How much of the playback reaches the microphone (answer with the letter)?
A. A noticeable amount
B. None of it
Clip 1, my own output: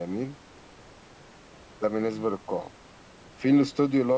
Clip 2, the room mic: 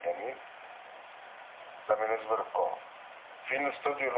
A